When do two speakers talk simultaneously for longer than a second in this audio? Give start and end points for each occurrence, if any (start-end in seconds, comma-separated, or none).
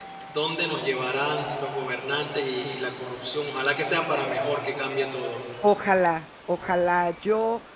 none